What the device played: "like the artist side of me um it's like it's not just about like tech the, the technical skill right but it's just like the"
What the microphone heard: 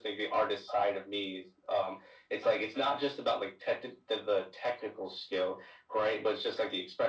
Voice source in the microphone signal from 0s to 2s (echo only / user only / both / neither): echo only